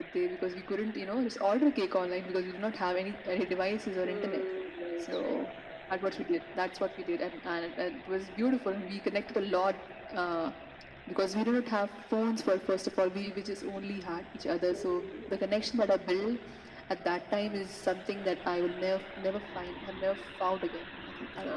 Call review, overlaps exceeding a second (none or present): none